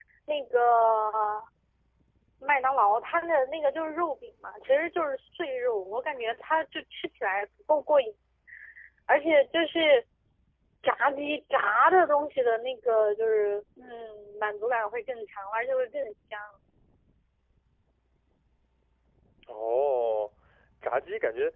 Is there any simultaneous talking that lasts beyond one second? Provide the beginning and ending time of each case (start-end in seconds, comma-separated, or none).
none